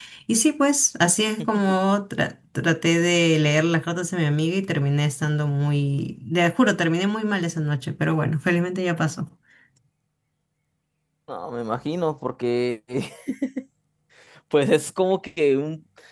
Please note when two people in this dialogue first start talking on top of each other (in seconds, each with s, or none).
none